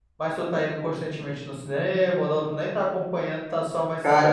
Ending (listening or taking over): taking over